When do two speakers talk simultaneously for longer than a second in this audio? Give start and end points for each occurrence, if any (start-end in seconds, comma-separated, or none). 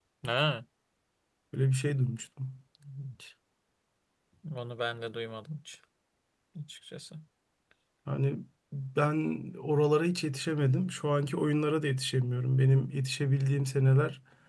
none